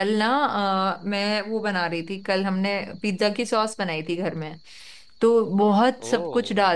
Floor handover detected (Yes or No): No